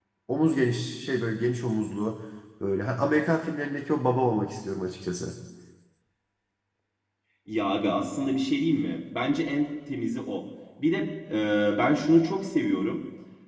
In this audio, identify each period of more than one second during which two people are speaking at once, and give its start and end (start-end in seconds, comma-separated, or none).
none